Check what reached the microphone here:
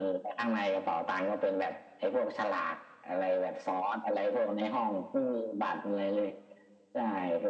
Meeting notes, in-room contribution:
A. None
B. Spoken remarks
A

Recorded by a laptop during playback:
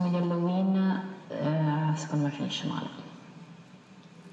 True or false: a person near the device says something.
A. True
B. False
B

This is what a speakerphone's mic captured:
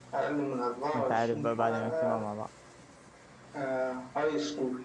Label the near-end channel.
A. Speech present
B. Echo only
A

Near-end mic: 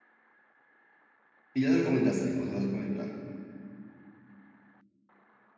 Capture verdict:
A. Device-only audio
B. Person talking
B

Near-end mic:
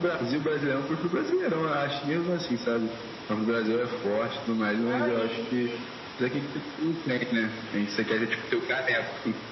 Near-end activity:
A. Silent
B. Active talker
B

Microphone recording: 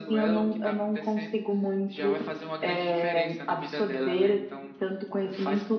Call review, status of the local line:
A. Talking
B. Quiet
B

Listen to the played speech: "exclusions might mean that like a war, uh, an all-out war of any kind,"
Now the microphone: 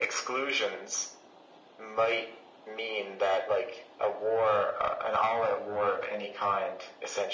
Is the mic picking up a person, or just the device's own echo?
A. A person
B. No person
B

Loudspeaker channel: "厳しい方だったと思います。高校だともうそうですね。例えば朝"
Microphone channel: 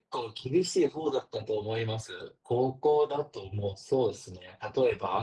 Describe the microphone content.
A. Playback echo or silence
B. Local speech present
A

